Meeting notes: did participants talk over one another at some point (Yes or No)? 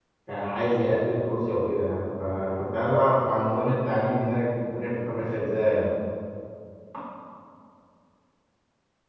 No